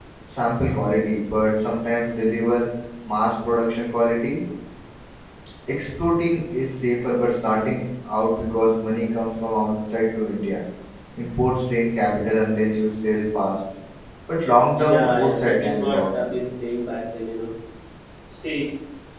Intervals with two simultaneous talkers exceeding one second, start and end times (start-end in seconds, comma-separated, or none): 14.8-16.4